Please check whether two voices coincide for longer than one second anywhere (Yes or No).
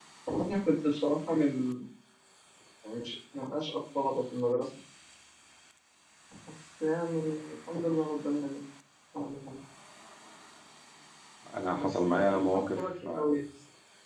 Yes